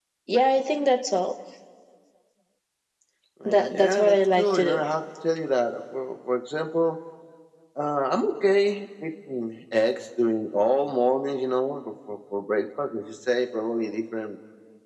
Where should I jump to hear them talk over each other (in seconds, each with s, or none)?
3.5 s